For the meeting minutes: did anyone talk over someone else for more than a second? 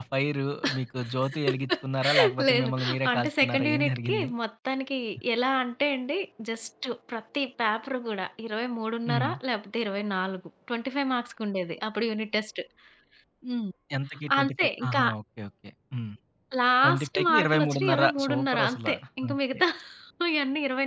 Yes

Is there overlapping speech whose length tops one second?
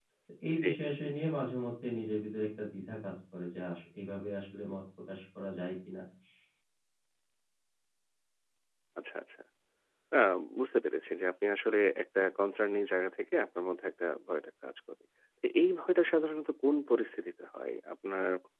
No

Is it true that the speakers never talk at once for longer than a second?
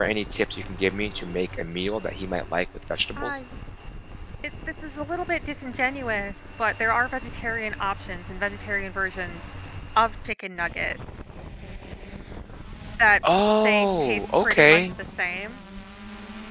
No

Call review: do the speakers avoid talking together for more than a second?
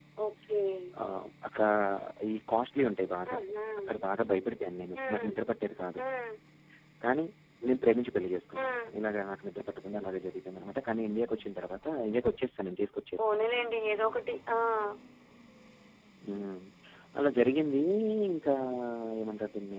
Yes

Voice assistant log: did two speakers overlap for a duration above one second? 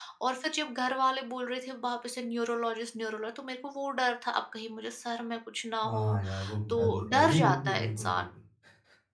Yes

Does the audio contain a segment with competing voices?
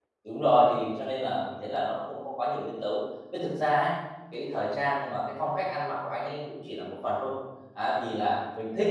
No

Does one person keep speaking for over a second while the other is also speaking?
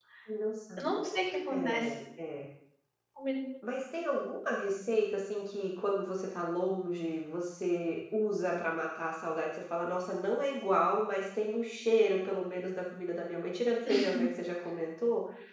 No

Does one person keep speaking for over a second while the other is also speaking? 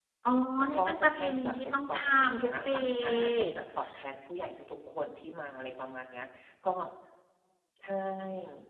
Yes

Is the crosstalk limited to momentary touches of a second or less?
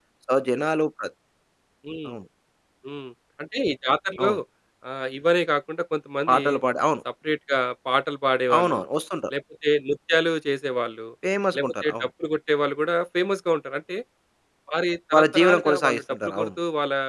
No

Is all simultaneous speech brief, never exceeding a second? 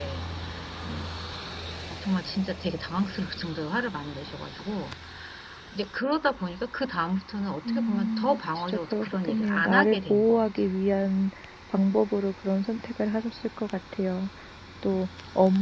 No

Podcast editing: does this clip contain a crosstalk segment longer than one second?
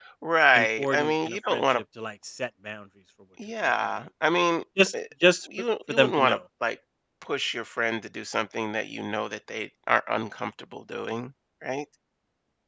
Yes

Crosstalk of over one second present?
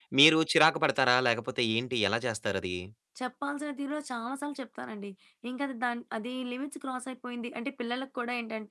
No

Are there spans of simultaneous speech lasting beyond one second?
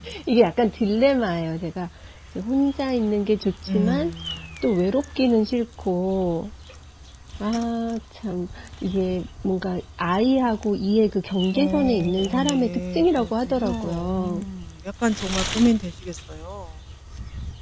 Yes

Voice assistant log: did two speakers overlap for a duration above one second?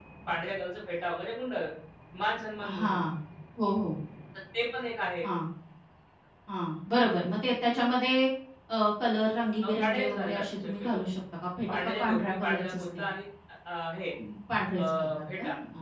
Yes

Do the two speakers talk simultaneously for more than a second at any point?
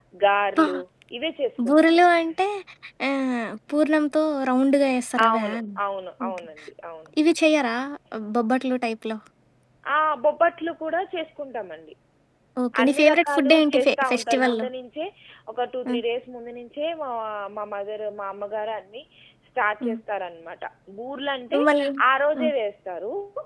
Yes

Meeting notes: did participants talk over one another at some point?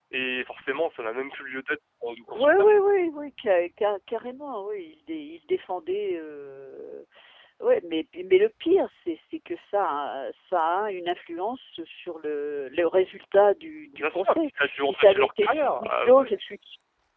Yes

